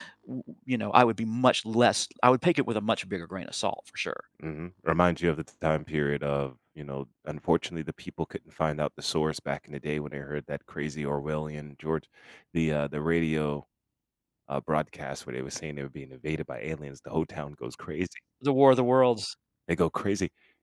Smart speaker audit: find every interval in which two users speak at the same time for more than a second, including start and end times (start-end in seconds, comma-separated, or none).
none